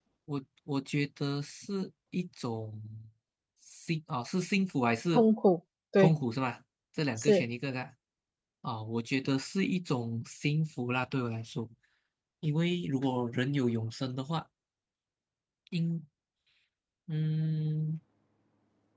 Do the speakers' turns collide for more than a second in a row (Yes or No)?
No